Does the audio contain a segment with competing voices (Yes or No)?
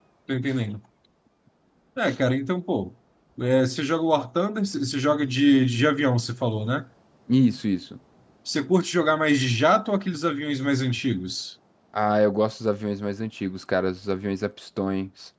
No